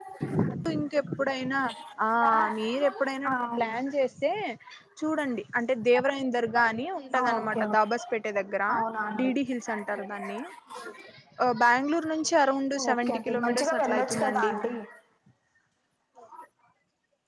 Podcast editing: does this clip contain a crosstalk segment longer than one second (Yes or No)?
Yes